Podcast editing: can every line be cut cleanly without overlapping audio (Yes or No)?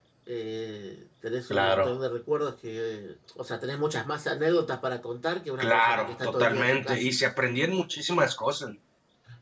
No